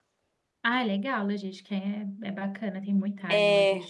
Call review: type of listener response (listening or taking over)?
taking over